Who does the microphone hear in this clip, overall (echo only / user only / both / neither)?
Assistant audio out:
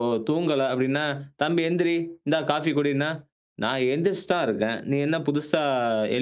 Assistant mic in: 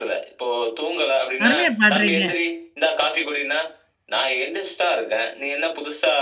both